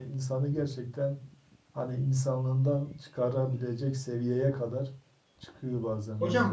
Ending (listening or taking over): taking over